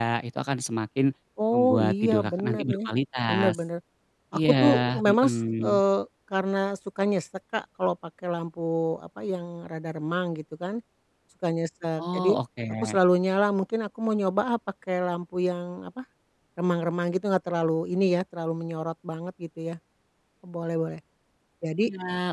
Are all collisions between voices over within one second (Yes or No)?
No